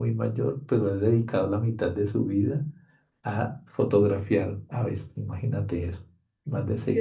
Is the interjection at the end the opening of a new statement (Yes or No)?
Yes